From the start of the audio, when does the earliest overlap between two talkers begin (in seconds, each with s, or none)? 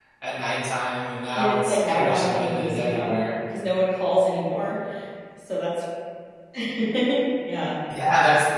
1.4 s